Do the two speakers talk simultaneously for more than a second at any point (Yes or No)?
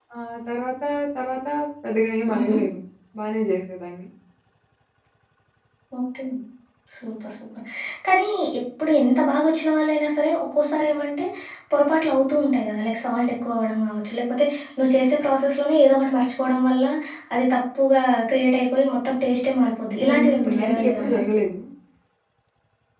Yes